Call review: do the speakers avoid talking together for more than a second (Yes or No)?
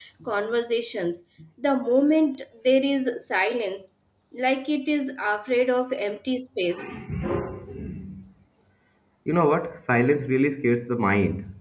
Yes